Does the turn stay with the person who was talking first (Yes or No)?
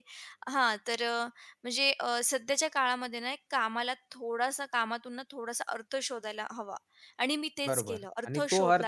No